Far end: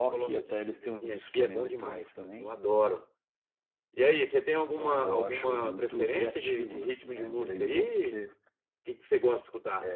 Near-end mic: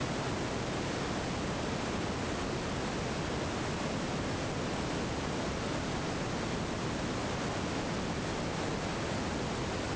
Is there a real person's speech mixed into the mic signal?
No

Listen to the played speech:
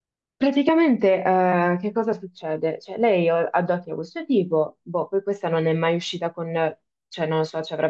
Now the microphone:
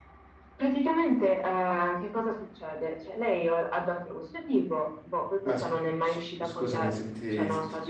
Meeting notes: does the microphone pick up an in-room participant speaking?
Yes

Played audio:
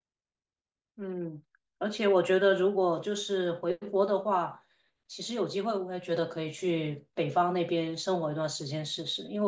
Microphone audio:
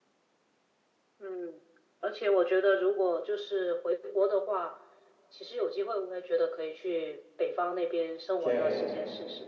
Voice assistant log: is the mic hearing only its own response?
No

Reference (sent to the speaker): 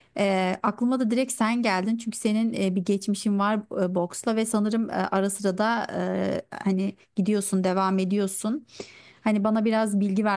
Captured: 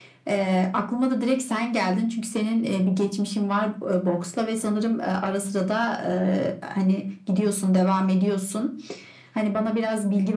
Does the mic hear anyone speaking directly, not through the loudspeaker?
No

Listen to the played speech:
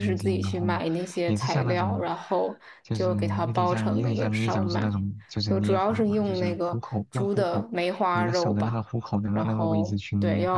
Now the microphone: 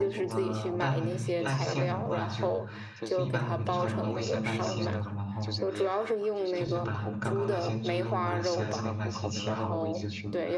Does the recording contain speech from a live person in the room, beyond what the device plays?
Yes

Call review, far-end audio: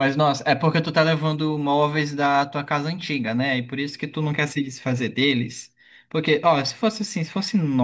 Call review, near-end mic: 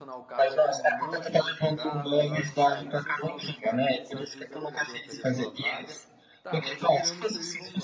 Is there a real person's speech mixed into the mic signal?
Yes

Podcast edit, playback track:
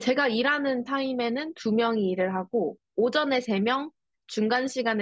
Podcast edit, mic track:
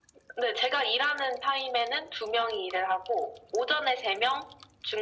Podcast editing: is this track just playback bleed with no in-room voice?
Yes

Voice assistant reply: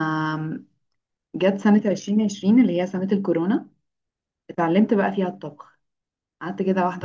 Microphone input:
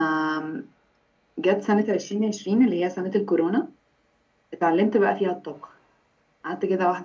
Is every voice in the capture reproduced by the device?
Yes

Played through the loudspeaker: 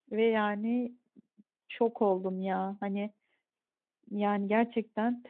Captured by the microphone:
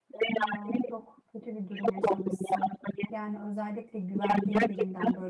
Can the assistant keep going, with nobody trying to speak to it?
No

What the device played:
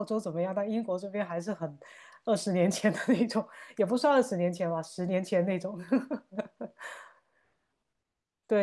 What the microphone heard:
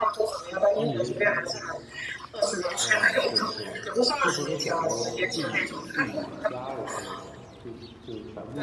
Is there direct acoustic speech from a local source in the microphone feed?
Yes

